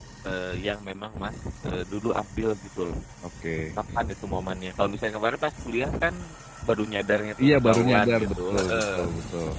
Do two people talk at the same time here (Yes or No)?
Yes